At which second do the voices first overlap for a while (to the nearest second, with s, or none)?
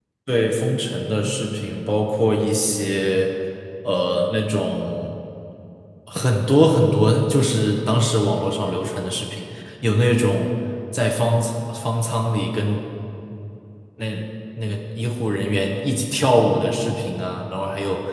none